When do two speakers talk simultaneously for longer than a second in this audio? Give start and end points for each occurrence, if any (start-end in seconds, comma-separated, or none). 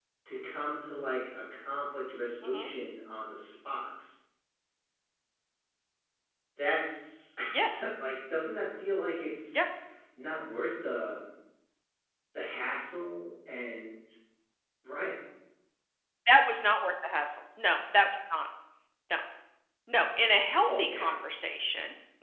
none